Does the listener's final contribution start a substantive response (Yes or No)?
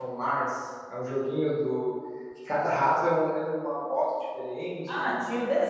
Yes